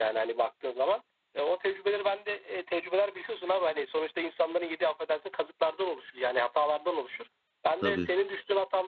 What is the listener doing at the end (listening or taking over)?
listening